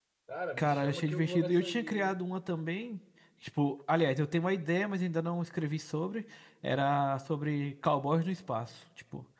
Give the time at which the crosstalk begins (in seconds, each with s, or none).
0.6 s